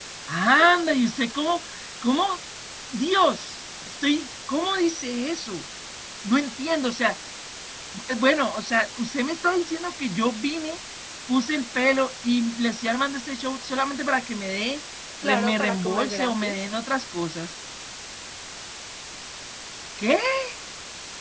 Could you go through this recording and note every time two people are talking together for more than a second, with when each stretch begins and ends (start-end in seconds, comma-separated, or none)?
15.2-16.6